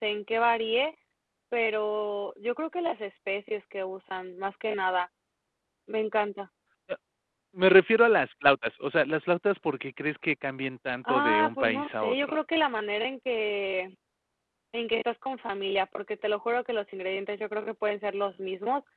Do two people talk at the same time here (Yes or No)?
Yes